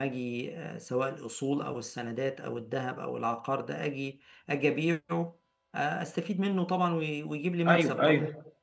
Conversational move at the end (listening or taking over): taking over